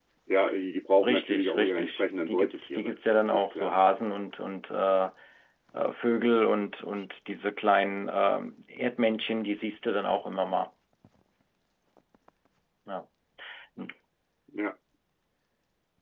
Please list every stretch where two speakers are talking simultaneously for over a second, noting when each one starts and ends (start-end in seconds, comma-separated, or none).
1.0-3.8